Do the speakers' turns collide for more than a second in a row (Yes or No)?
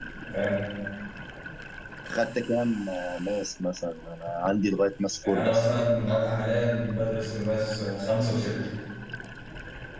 No